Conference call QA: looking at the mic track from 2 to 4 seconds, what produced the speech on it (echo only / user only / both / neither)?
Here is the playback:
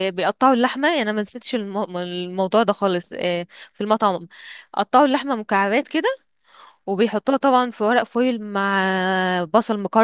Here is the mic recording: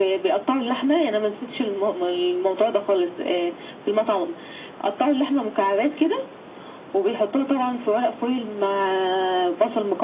echo only